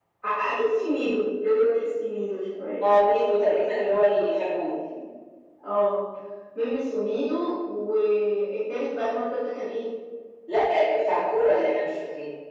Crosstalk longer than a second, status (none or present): none